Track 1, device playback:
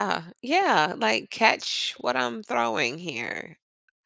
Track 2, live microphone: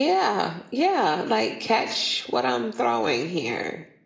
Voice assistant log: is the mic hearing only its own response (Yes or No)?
Yes